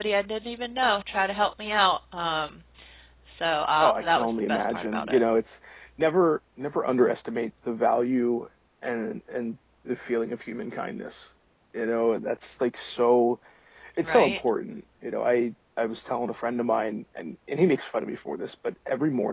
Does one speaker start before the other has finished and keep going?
Yes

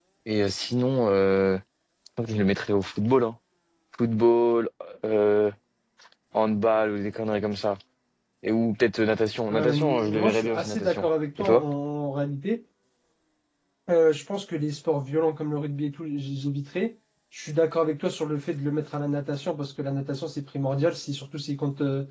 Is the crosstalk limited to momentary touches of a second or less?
No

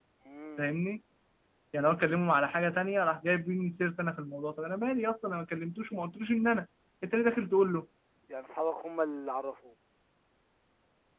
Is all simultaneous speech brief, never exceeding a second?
Yes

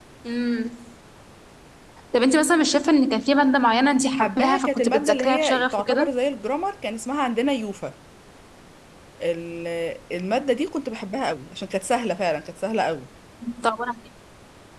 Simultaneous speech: Yes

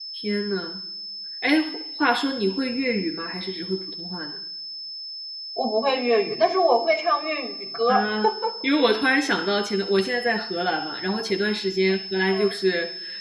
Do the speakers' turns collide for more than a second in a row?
No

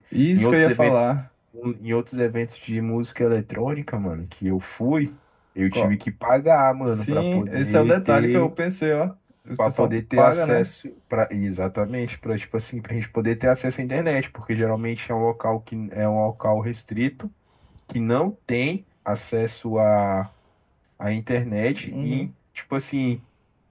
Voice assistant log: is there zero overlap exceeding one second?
No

